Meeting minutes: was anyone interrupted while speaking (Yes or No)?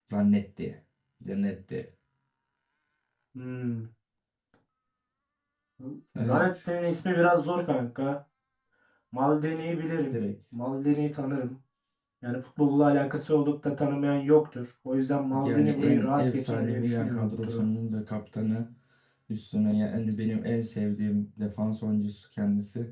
Yes